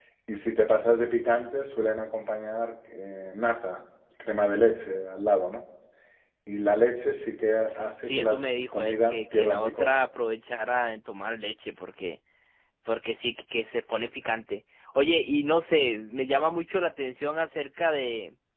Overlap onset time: 8.1 s

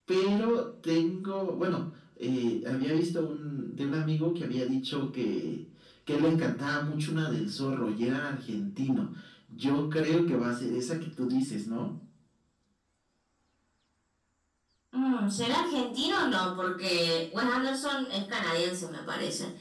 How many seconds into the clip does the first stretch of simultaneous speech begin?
none

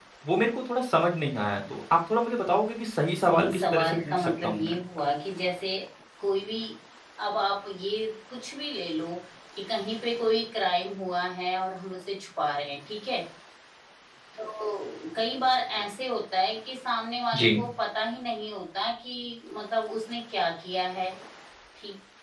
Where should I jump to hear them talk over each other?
3.2 s

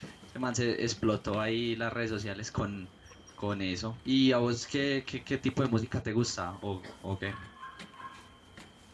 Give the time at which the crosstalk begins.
none

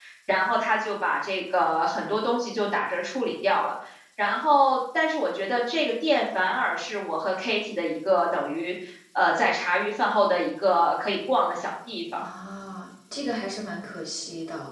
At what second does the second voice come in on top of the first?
none

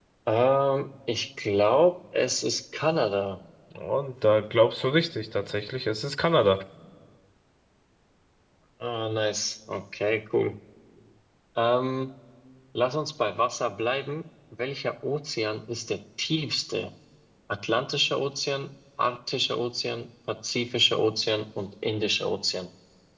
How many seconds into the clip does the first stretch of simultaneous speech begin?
none

